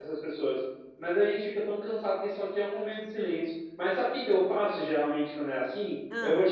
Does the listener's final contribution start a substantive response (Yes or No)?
No